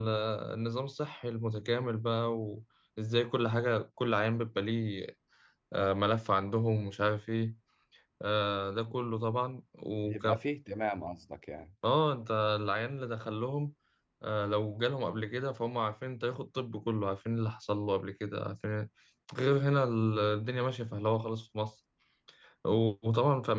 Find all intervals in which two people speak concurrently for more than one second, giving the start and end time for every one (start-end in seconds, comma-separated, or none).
none